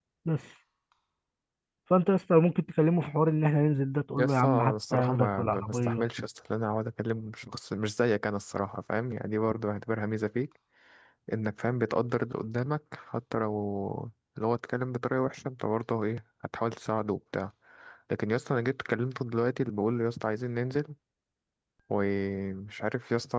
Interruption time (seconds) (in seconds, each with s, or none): 4.2 s